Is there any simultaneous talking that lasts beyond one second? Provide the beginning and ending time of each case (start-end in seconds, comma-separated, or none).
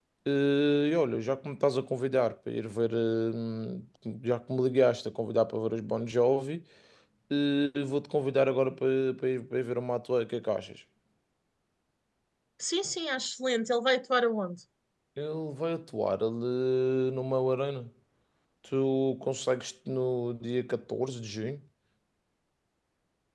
none